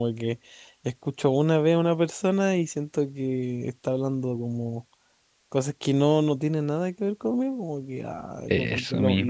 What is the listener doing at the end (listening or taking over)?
listening